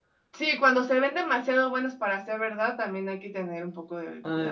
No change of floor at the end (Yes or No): No